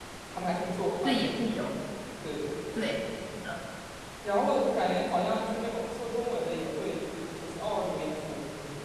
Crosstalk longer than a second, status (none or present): none